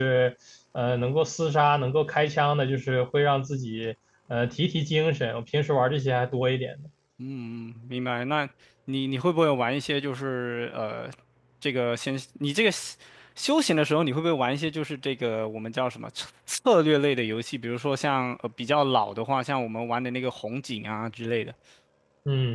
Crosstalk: none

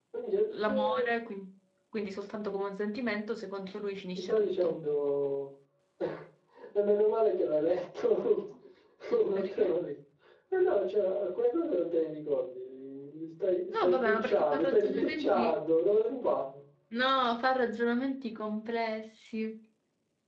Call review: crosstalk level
present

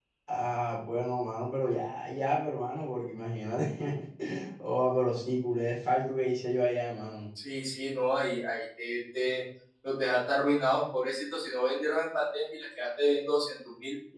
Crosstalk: none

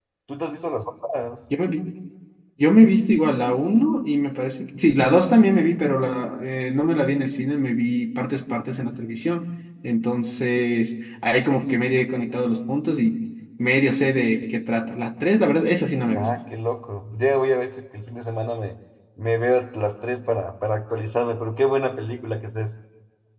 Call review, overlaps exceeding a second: none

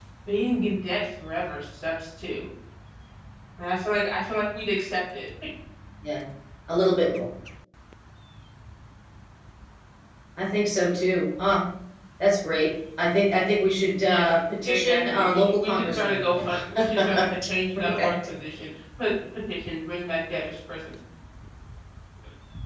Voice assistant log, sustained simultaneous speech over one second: present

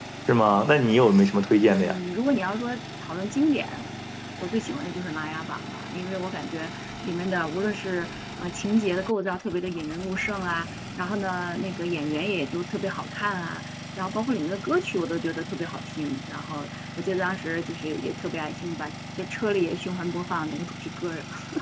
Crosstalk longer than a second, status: none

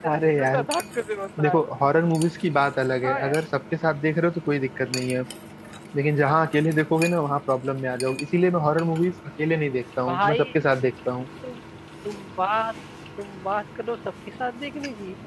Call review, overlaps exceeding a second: none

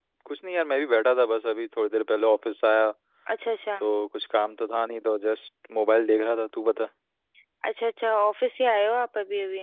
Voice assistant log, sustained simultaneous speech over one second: none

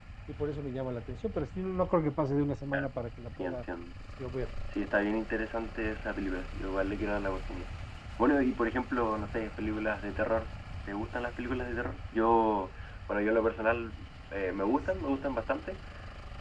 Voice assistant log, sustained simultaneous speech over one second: none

